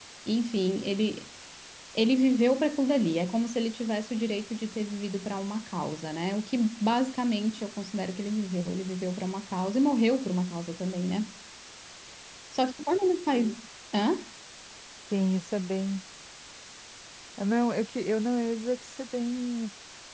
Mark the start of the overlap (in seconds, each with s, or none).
none